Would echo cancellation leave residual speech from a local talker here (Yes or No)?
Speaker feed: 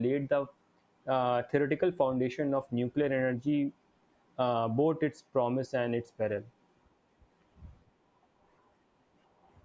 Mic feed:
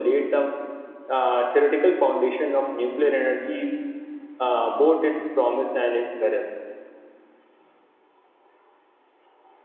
No